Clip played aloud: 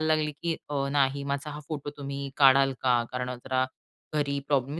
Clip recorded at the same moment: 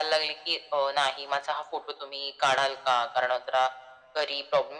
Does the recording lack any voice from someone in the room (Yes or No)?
Yes